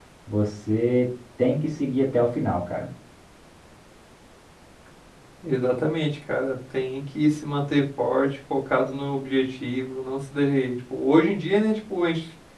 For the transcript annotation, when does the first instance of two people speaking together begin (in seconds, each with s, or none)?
none